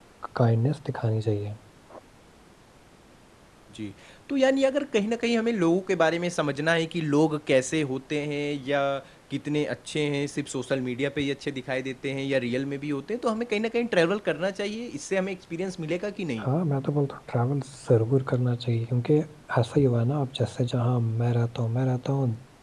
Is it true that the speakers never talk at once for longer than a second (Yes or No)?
Yes